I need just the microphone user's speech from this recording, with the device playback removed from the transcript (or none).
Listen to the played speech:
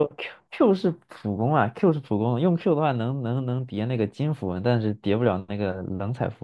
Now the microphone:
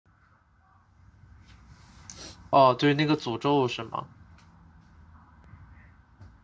哦，对，那个诅咒是吗？